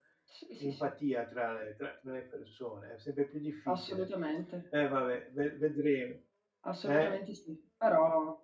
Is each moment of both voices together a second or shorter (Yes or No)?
Yes